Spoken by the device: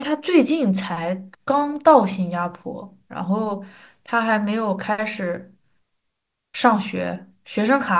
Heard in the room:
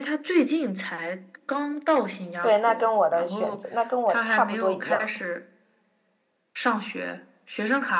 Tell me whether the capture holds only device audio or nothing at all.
No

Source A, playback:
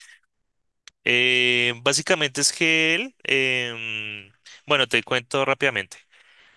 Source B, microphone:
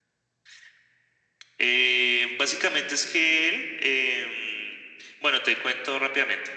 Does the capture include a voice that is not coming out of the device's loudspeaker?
No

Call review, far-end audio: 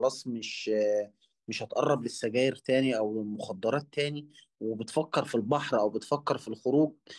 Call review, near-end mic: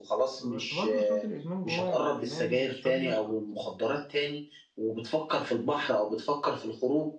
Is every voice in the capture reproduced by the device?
No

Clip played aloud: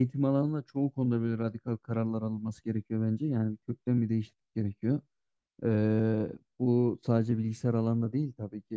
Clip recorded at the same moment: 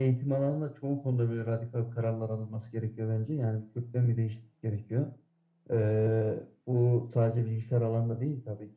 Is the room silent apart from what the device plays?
Yes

